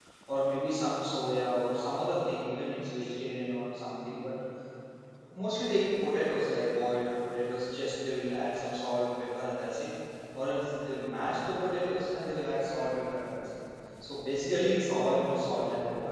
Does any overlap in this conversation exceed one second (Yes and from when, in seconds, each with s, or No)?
No